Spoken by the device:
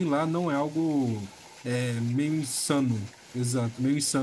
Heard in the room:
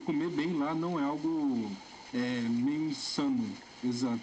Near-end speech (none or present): none